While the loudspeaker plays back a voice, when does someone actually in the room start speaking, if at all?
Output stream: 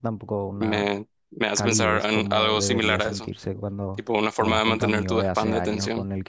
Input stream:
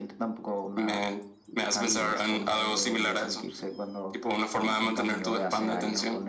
none

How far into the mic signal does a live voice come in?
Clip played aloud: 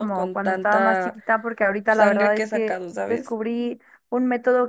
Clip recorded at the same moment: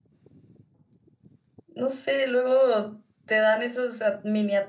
2 s

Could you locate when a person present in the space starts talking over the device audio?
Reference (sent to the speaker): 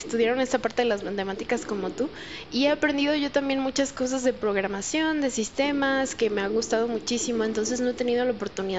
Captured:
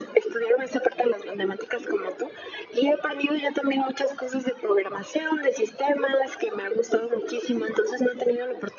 none

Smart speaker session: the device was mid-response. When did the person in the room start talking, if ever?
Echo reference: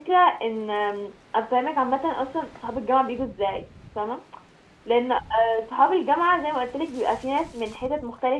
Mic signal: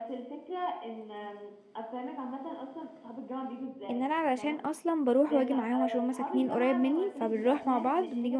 4 s

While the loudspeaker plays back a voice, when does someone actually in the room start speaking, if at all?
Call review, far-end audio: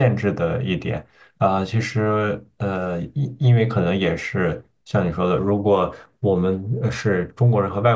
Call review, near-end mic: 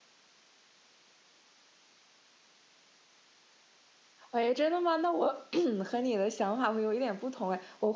4 s

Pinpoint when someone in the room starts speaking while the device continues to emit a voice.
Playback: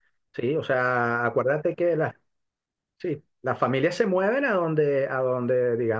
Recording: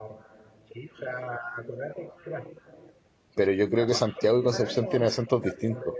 3 s

